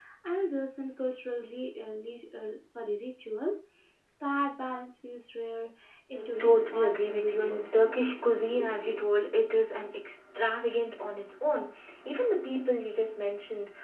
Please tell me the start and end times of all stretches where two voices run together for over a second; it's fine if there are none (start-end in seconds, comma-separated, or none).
6.1-8.2